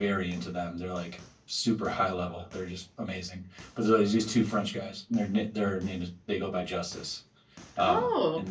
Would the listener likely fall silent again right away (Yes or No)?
Yes